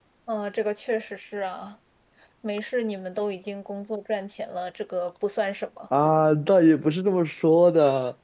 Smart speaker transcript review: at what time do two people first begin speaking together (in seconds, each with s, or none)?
none